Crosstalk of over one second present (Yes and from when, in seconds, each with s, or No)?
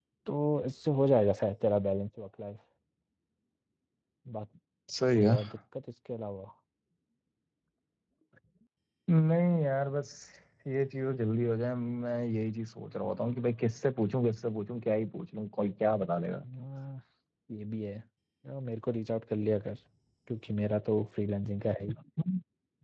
No